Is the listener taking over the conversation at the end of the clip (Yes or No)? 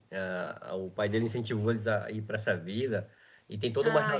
No